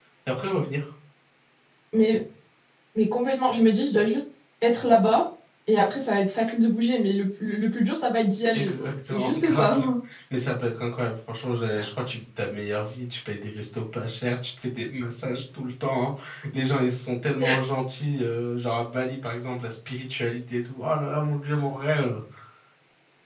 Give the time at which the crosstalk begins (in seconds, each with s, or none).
8.5 s